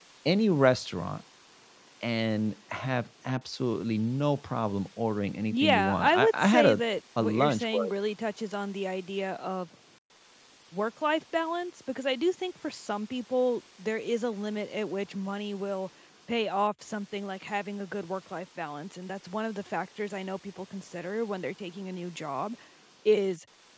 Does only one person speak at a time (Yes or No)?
No